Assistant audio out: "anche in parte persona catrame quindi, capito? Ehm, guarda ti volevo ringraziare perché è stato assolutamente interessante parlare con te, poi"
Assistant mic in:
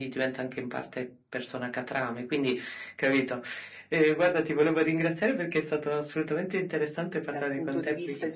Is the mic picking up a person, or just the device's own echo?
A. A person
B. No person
A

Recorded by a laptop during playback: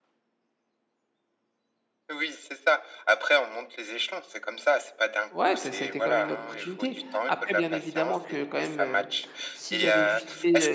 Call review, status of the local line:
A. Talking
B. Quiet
A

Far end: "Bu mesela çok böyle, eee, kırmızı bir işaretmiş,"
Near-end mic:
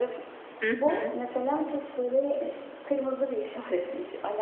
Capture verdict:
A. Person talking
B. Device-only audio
A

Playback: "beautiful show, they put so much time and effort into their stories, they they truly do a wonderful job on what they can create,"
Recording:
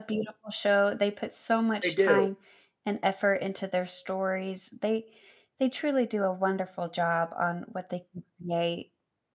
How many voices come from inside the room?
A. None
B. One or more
B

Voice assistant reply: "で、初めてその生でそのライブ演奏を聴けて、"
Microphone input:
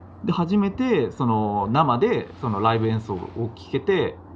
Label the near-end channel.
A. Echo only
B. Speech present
A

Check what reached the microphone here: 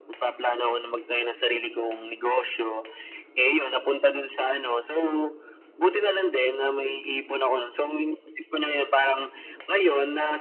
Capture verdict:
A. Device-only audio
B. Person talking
A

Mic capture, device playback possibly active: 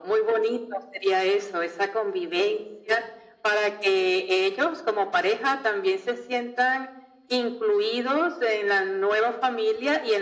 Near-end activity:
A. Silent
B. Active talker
A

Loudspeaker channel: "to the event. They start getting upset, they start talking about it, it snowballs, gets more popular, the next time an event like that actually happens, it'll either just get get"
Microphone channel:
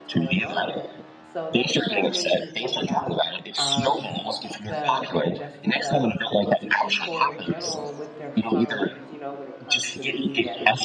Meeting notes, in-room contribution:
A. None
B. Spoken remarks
B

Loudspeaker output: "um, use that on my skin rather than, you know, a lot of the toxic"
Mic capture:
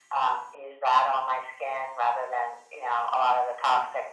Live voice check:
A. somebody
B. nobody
B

